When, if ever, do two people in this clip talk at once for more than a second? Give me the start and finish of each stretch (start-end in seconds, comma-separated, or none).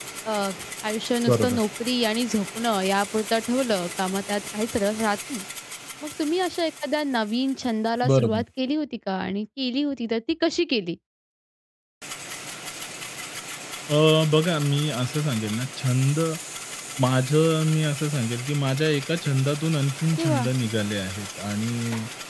none